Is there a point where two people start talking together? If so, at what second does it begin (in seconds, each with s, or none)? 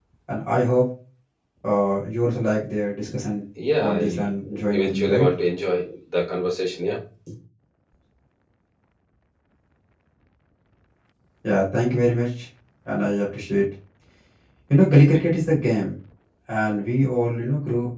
3.8 s